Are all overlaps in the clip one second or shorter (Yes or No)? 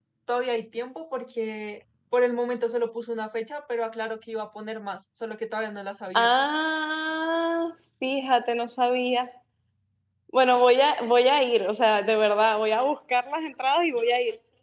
Yes